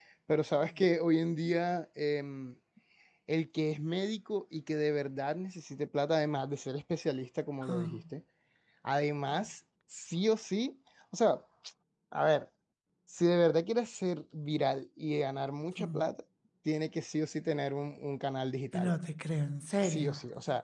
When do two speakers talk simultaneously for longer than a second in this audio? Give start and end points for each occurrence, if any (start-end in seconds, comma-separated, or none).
none